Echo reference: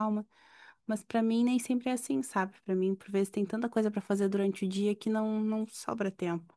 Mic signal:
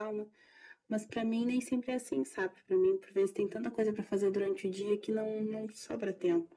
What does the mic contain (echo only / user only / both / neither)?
echo only